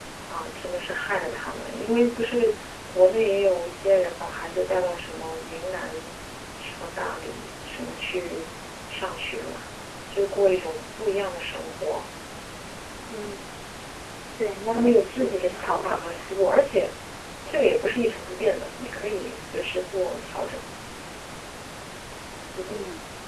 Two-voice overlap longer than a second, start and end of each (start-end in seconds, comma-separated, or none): 14.7-16.0